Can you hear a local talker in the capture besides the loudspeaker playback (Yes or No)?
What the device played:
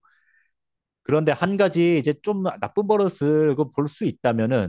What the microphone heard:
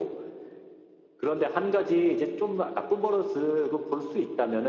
No